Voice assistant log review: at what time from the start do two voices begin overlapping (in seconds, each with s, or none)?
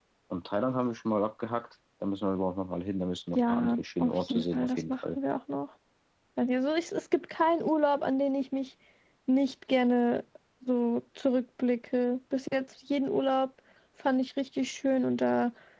3.4 s